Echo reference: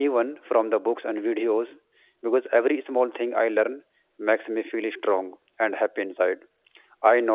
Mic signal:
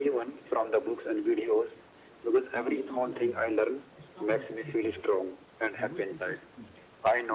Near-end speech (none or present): present